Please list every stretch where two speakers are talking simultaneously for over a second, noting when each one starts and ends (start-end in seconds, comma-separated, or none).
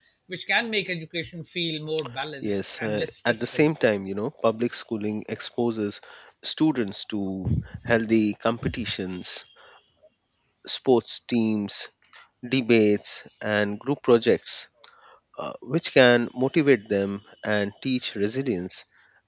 2.4-3.7